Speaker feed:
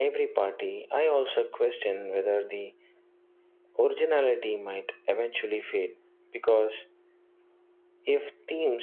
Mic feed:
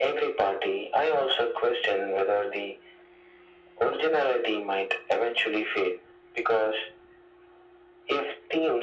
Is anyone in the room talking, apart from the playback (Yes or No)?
No